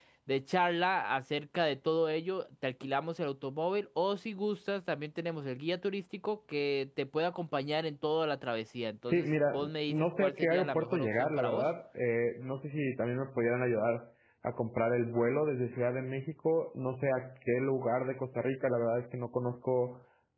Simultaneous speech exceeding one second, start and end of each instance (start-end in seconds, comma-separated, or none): 9.1-11.7